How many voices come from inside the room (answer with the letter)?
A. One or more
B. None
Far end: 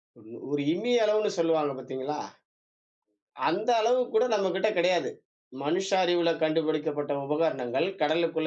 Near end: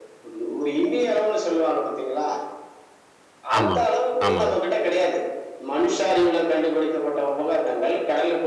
A